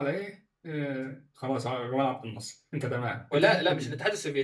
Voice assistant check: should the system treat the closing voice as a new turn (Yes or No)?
Yes